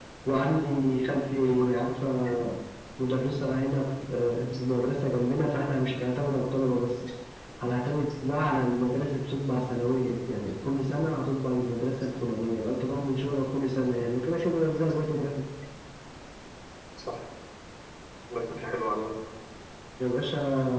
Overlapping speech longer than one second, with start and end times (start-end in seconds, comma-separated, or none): none